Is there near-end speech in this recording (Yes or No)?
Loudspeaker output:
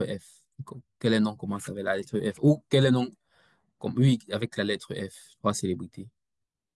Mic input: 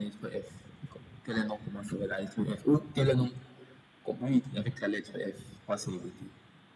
No